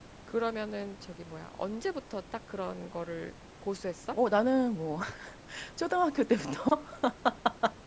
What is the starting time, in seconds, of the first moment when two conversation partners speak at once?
none

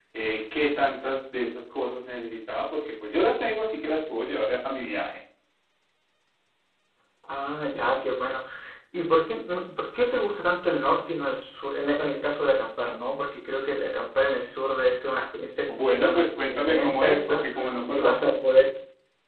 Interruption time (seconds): 16 s

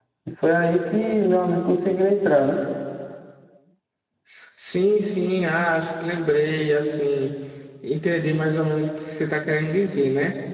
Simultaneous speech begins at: none

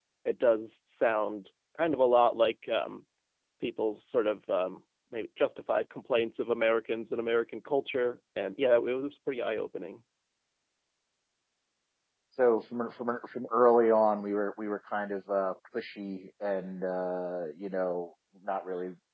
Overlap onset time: none

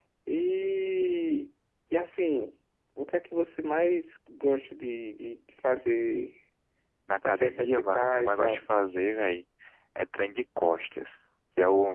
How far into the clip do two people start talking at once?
7 s

